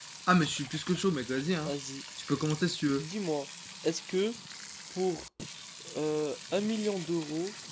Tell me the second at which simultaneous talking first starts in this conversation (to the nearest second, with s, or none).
none